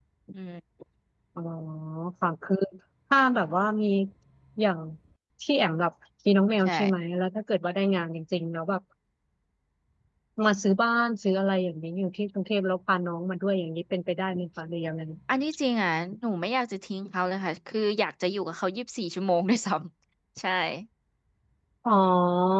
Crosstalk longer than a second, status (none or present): none